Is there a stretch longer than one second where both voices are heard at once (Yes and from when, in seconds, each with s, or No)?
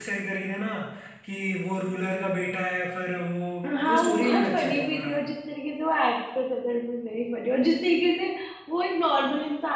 Yes, from 3.6 s